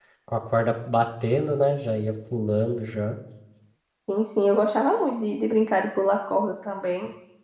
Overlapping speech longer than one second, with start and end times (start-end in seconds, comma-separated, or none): none